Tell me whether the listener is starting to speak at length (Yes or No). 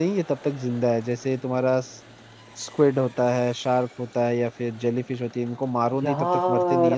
Yes